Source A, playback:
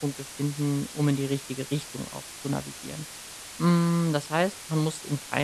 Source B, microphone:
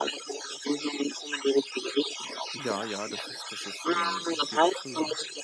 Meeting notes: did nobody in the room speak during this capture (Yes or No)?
No